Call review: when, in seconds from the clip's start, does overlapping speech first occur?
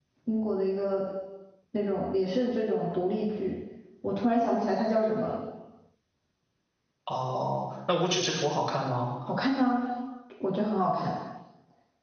none

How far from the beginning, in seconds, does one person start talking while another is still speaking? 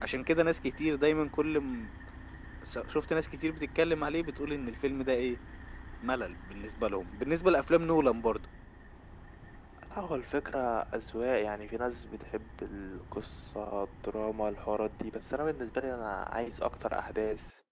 none

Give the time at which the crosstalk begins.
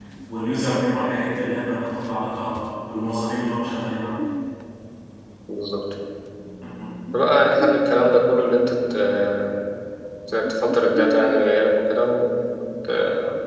none

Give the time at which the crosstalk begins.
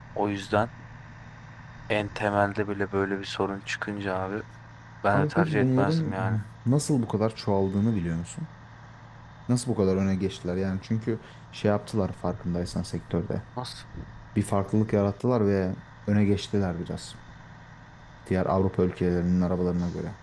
5.1 s

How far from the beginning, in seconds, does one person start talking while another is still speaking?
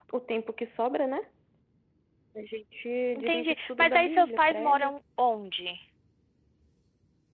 3.1 s

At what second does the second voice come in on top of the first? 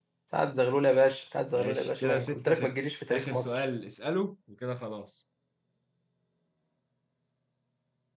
1.5 s

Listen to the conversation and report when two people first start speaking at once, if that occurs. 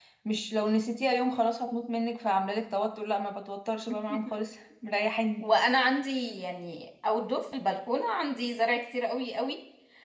none

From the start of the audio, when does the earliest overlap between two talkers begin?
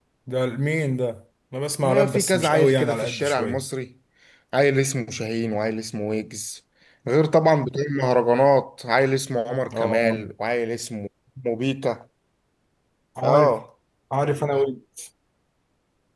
1.8 s

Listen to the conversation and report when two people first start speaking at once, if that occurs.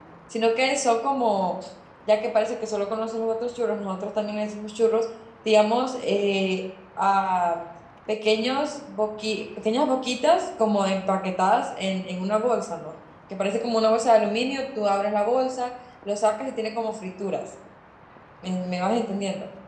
none

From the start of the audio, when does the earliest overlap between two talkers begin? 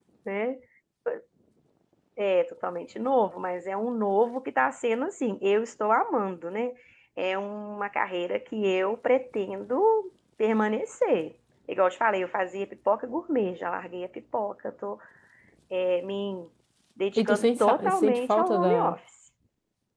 17.2 s

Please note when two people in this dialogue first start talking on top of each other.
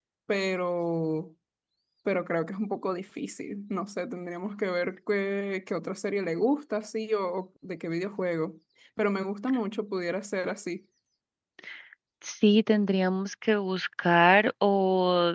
none

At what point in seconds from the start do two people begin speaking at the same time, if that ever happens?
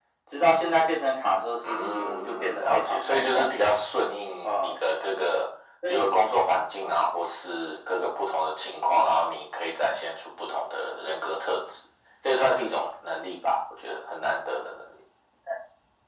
1.7 s

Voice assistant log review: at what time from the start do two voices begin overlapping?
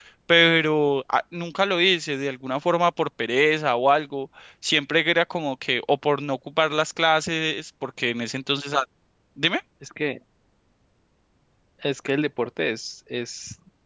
none

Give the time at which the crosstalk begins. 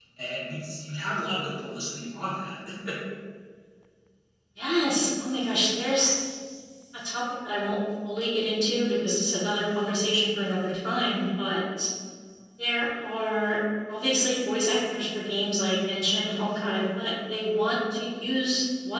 none

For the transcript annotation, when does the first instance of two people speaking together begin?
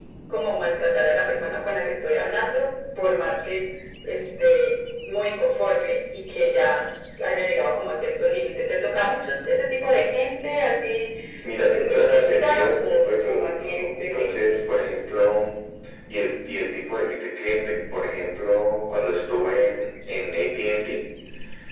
11.6 s

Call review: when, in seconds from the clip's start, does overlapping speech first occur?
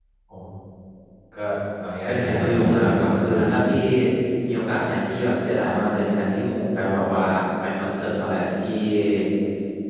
2.1 s

